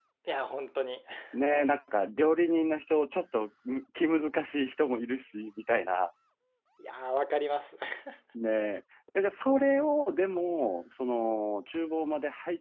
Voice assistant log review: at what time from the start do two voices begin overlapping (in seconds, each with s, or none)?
none